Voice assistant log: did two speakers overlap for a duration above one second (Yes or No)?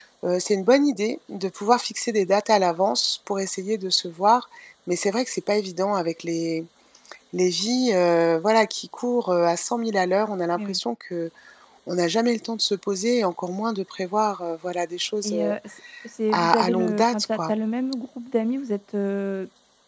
Yes